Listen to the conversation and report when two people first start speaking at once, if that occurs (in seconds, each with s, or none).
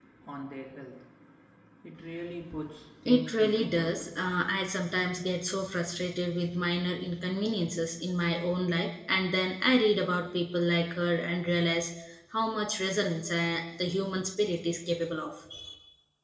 3.0 s